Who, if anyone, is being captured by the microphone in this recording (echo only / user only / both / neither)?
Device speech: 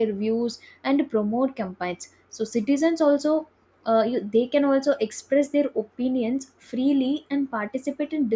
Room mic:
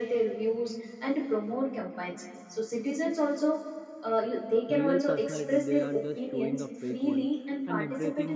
both